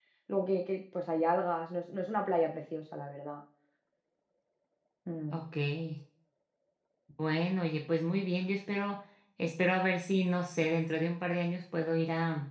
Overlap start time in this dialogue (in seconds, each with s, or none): none